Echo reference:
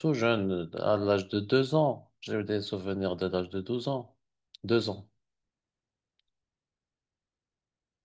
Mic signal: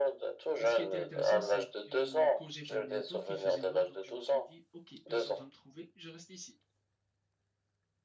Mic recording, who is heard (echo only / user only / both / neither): both